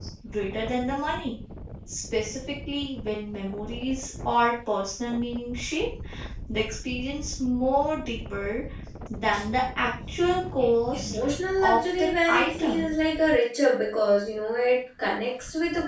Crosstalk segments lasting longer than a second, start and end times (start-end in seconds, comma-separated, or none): 11.6-12.9